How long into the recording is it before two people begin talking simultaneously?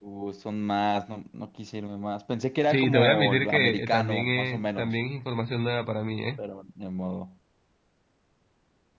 2.7 s

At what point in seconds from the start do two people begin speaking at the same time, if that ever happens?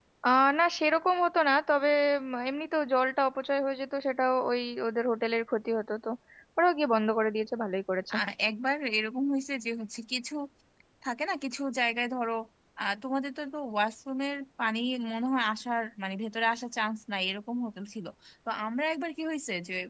none

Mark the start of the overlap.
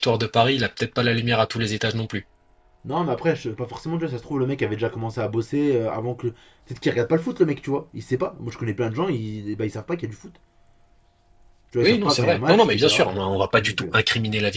11.8 s

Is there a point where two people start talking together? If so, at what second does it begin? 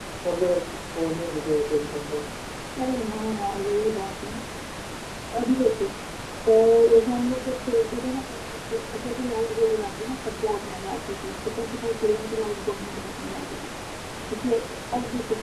none

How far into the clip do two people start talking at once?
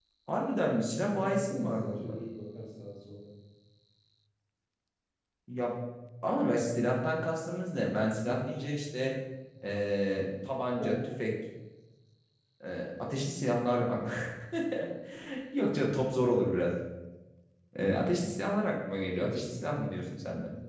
0.9 s

